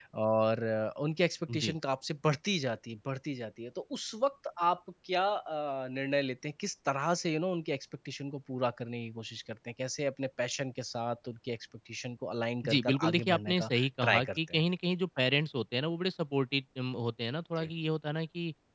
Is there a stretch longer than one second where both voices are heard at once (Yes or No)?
Yes